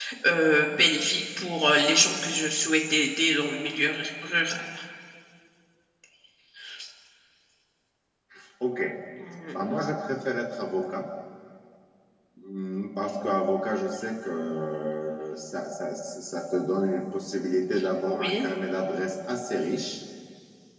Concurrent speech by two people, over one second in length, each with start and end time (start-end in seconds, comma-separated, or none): none